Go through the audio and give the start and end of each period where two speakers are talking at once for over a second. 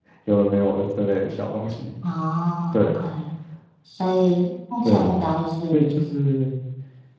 none

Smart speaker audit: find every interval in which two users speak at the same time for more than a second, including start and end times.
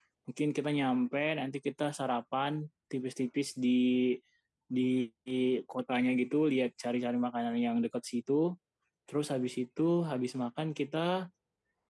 none

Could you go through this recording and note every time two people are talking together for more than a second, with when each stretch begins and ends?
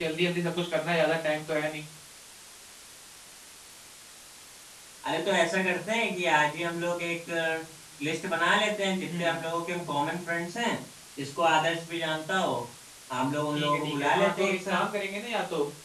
13.5-14.9

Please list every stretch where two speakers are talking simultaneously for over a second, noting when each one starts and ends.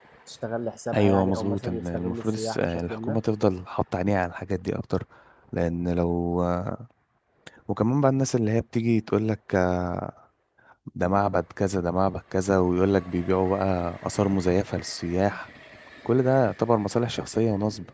0.9-3.2

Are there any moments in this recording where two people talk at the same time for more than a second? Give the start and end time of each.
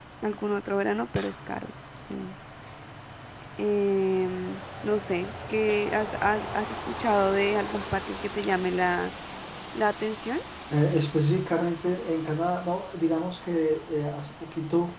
none

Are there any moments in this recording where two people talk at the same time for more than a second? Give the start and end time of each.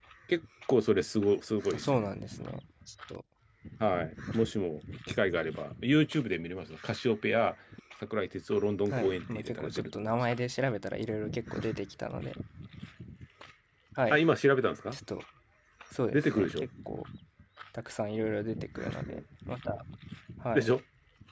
8.9-10.1

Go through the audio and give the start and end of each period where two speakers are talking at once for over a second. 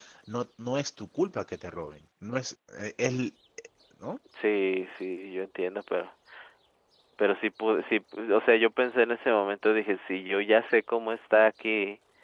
none

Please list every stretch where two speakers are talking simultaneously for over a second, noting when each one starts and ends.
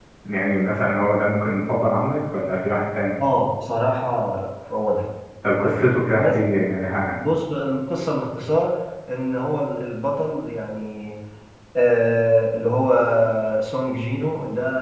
none

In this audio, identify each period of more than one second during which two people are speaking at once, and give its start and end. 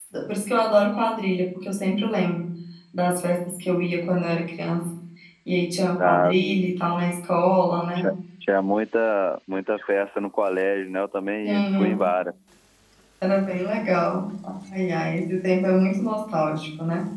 none

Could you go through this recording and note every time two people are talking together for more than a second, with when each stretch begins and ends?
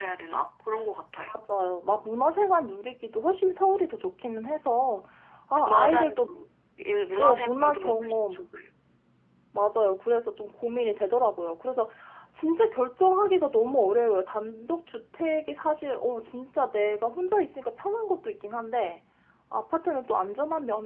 7.2-8.4

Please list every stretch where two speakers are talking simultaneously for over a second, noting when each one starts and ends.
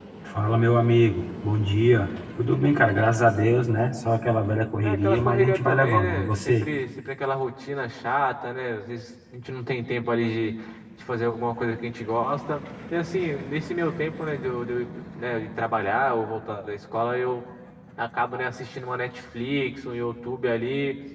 4.8-6.7

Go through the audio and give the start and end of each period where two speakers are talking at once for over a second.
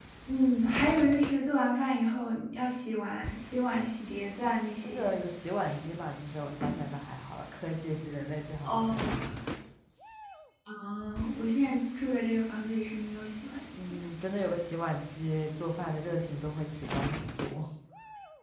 none

